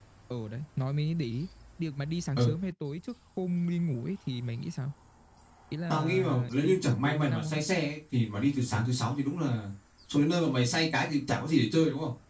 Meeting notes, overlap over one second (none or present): present